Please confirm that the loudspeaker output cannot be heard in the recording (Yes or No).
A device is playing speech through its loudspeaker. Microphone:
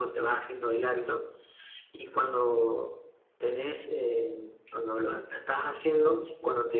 No